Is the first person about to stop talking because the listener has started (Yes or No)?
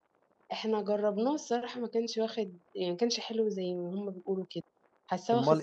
Yes